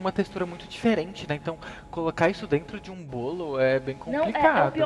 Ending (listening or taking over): taking over